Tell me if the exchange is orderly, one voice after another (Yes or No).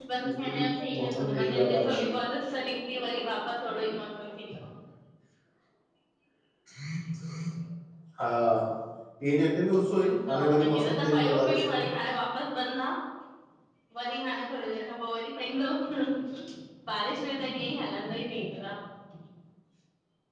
No